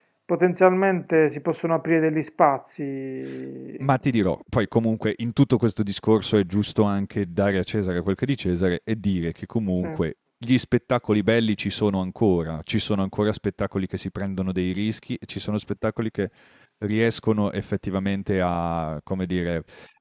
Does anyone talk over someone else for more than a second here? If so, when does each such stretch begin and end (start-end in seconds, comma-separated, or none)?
none